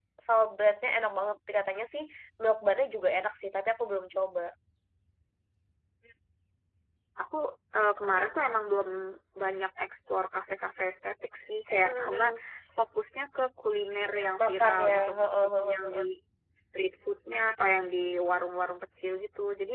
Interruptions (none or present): present